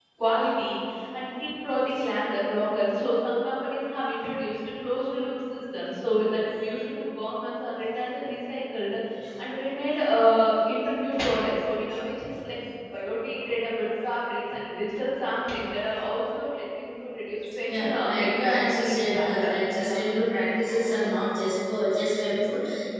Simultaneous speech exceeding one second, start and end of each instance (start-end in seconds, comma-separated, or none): 17.7-20.0